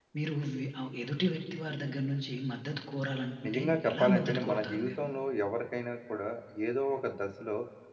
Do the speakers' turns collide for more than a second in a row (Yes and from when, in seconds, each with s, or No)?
Yes, from 3.4 s